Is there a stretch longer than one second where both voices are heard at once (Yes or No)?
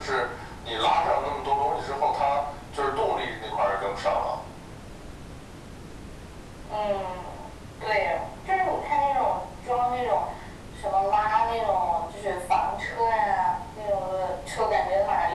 No